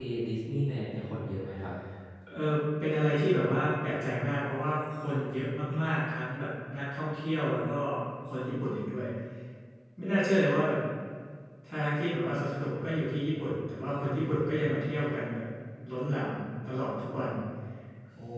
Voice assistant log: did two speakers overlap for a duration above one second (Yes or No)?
No